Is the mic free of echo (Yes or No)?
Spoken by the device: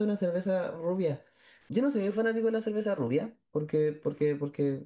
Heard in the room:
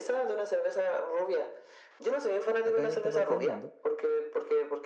No